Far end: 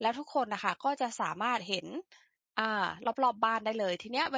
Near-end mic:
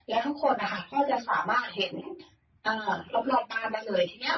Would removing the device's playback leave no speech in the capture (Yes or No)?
Yes